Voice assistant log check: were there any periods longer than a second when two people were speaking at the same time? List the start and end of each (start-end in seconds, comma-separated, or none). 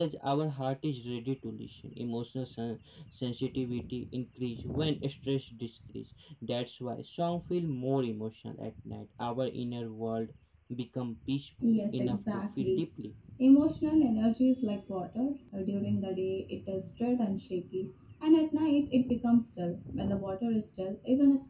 11.6-12.8